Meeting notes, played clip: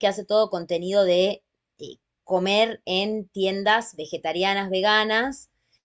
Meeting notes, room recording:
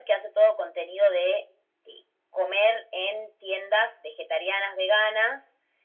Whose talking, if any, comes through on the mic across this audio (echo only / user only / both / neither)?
echo only